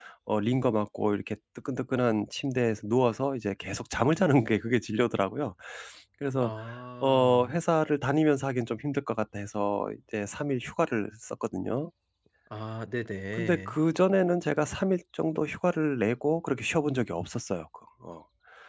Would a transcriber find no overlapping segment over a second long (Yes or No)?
Yes